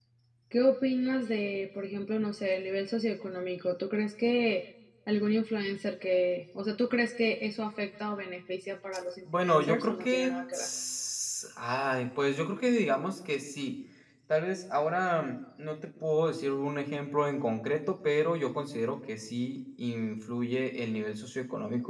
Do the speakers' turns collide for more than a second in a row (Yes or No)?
Yes